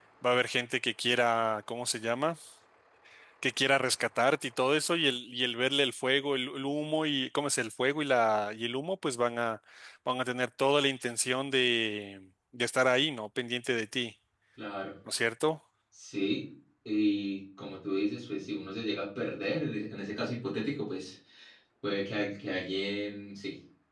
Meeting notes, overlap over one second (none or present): none